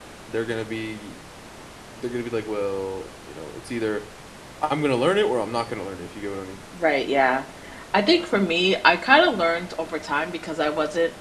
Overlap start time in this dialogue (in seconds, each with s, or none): none